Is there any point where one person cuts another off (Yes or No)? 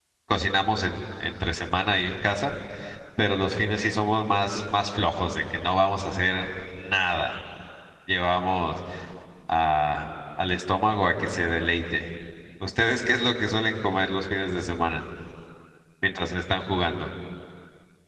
No